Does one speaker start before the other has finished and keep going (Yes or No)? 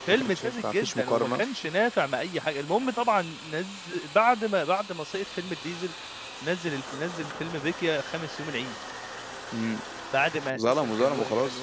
Yes